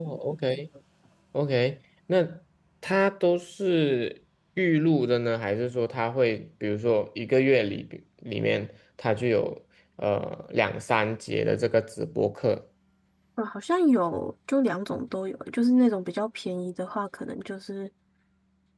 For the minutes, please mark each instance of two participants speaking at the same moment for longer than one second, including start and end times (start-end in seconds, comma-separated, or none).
none